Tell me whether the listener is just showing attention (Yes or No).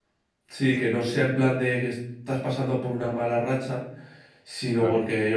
Yes